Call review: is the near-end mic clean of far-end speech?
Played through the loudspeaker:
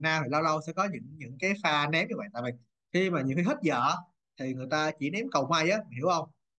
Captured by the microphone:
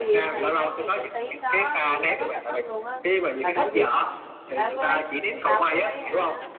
No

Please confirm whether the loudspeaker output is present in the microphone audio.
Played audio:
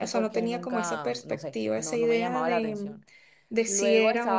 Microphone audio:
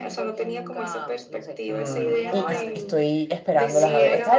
Yes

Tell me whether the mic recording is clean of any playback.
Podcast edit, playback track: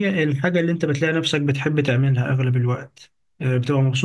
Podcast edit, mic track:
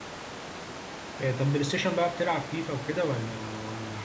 Yes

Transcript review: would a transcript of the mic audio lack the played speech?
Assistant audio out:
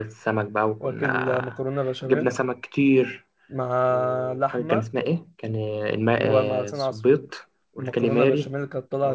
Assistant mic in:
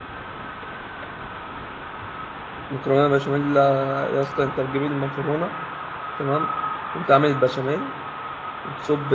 Yes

